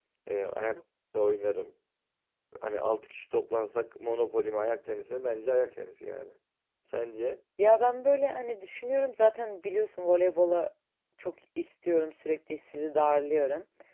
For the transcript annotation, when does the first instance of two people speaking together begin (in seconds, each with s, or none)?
none